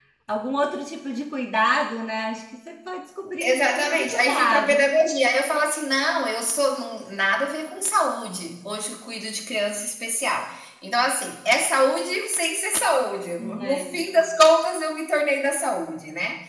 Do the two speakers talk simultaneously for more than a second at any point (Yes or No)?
Yes